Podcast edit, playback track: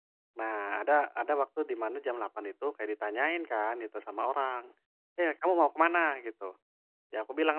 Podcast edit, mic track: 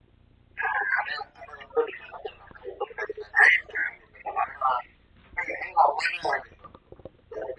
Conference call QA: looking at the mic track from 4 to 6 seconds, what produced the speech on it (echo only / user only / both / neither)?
echo only